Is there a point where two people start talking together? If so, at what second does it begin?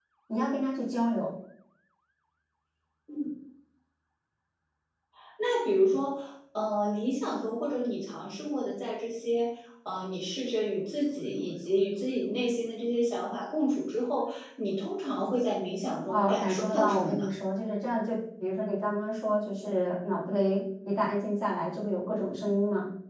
16.1 s

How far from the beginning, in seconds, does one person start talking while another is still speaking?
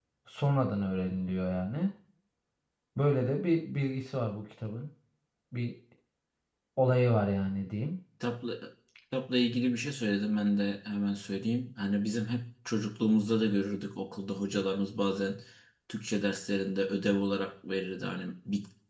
none

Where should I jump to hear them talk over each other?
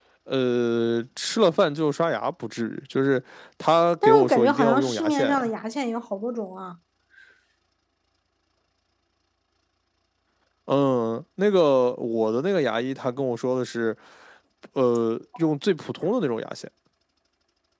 4.0 s

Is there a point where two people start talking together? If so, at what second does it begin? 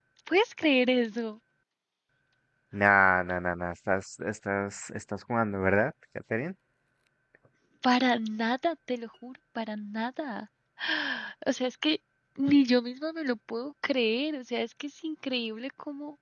none

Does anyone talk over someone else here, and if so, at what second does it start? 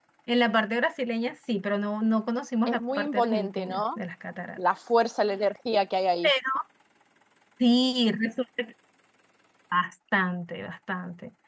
2.7 s

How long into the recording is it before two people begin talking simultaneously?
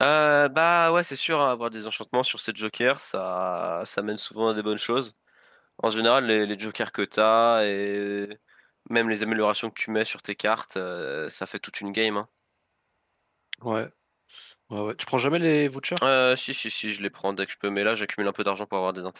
none

